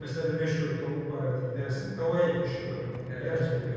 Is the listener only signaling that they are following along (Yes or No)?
Yes